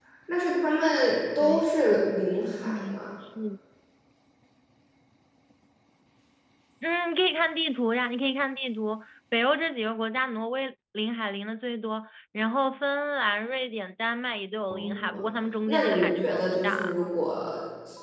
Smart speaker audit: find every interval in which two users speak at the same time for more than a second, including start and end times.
15.7-16.9

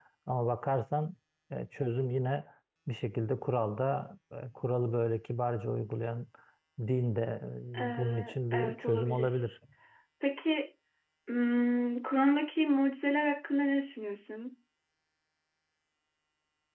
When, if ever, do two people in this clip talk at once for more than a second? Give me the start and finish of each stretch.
7.9-9.4

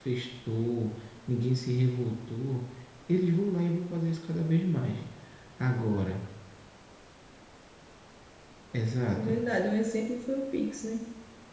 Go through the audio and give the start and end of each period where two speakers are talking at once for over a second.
none

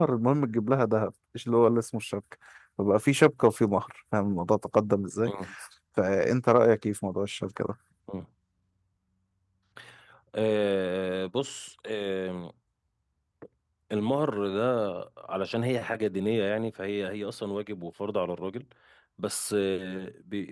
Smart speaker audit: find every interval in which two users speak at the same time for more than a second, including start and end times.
none

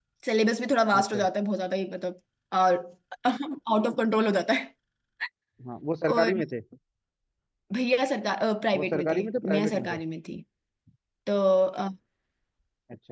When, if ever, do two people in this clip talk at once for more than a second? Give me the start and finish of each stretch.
8.7-10.0

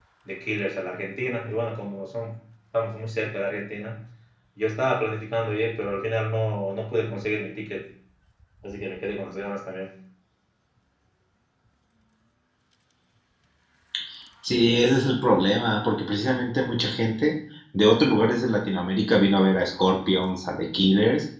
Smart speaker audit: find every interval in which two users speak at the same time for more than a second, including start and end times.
none

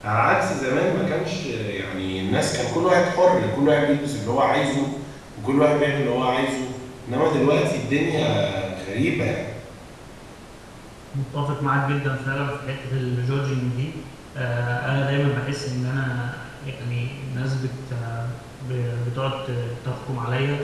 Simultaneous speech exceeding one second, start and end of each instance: none

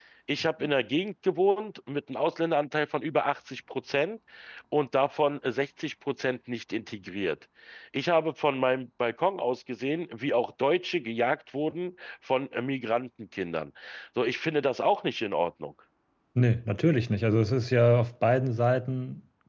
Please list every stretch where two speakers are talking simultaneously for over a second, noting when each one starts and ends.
none

